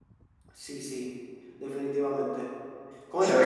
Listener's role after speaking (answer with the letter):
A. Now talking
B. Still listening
A